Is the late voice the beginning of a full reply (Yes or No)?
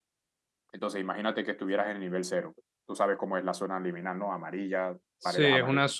Yes